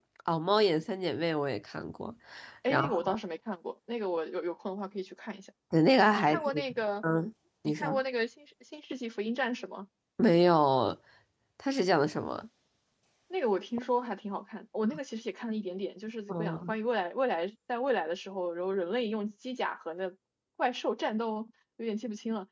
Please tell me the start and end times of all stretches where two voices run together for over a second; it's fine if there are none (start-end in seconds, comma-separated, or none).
none